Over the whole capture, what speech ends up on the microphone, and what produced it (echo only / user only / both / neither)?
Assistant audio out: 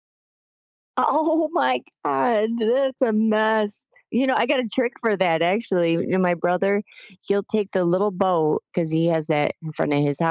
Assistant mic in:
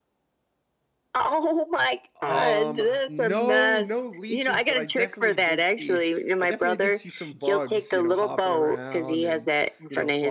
both